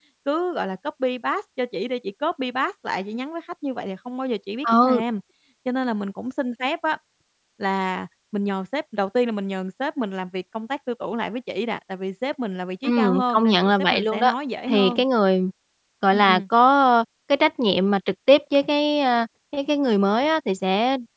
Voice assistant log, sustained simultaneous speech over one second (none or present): present